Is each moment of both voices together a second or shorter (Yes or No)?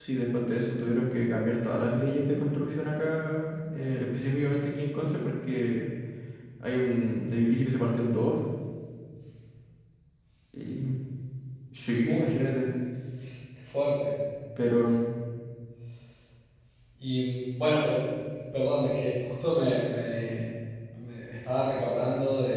Yes